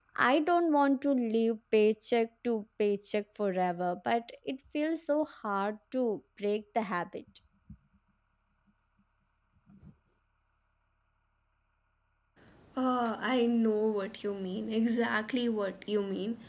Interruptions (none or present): none